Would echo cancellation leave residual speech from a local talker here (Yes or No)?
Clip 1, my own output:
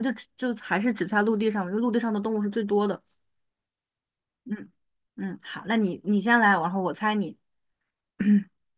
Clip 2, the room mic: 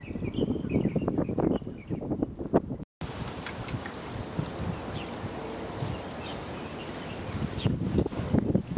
No